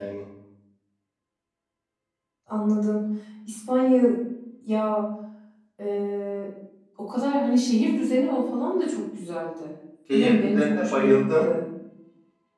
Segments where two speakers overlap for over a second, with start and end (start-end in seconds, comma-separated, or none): 10.1-11.5